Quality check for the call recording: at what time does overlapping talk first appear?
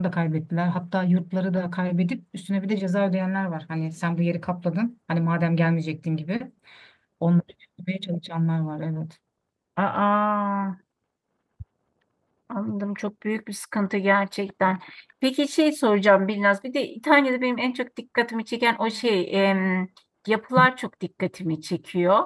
none

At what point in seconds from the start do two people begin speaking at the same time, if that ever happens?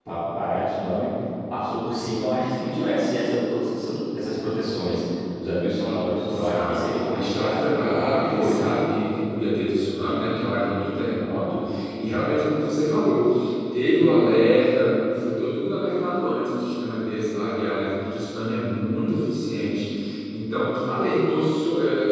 6.2 s

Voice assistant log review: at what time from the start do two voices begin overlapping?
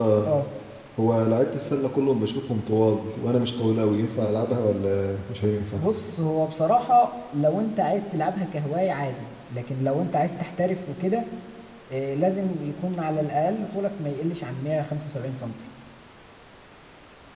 none

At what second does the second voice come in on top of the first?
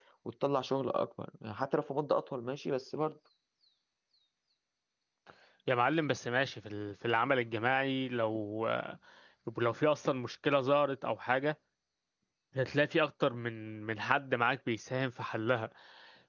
none

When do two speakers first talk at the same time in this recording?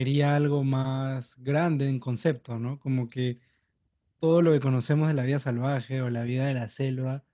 none

